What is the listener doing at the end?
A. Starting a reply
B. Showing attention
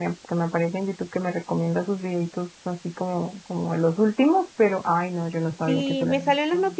A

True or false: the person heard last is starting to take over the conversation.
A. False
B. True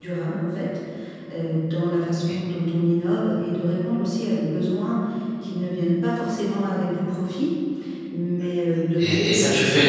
B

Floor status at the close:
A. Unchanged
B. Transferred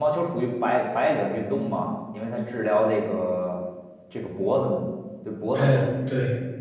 B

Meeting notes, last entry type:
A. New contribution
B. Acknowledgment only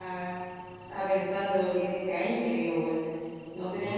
B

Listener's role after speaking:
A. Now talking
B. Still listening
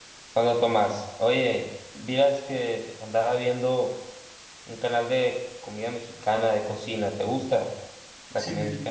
A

